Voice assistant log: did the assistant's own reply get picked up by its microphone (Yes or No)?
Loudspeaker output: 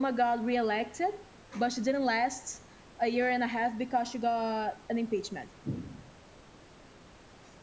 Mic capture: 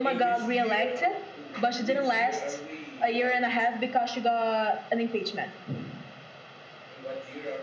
Yes